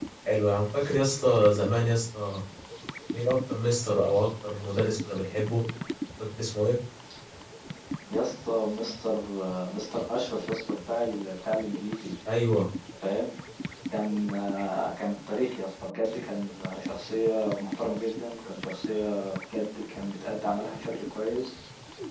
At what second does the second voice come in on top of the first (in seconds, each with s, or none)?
none